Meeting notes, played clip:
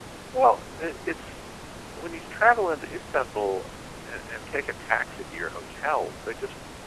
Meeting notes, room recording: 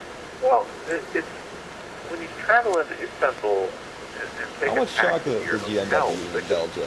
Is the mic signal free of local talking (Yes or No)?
No